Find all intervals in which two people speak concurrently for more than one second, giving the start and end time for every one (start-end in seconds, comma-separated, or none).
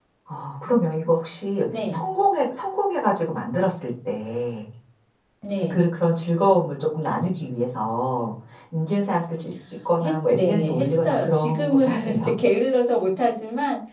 10.0-12.3